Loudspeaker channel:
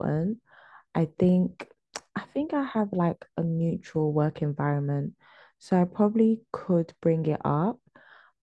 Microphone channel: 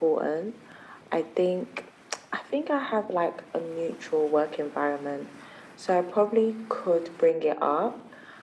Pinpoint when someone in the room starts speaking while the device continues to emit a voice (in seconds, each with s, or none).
none